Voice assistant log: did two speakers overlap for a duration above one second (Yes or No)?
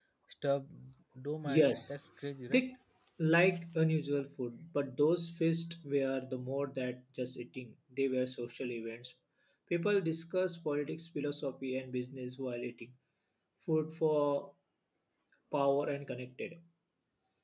No